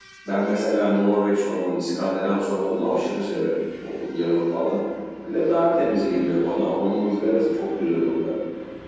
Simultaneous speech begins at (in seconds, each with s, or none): none